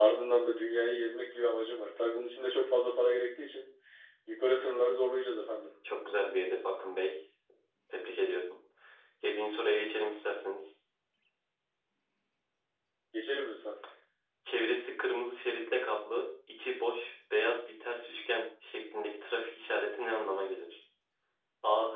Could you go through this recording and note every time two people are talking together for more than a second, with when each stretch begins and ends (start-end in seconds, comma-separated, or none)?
none